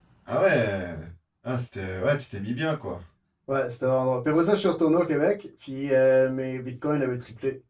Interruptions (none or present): none